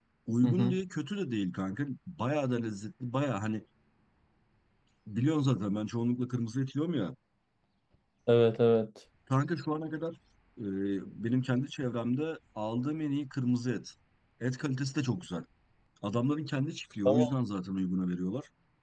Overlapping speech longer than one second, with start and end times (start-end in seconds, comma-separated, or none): none